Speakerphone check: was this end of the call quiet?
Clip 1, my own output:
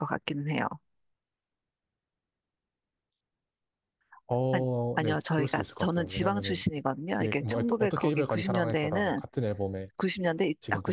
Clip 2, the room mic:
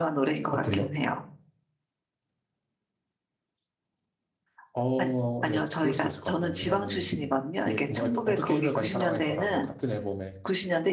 No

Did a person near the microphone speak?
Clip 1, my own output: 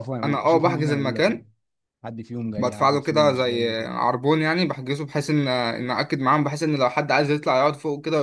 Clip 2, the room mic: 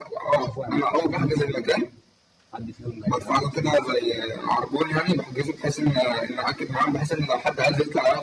No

